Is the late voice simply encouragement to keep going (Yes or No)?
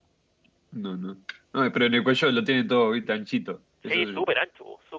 No